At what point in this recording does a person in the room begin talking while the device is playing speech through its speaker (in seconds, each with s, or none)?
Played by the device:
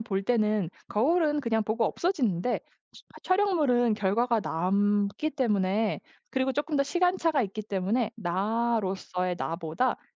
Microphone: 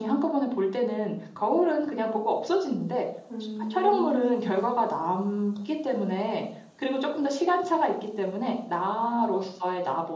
3.3 s